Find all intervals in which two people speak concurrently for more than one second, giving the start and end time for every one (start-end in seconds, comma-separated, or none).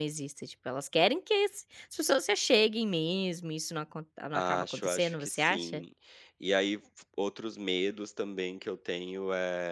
4.3-5.8